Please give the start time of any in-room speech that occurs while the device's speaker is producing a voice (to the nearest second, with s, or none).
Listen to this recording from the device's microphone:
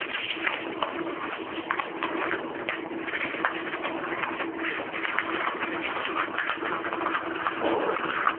none